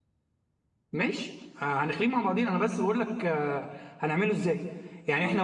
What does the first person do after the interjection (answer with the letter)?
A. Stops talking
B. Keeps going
B